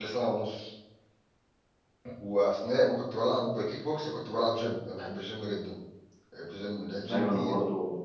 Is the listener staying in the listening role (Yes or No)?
No